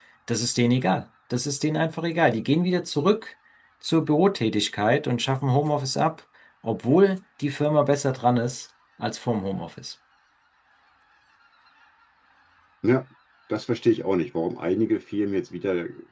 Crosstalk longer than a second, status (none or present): none